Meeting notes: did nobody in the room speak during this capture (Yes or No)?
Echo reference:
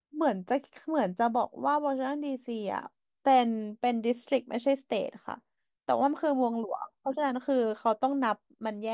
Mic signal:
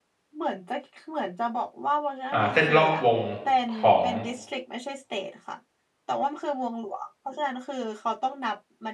No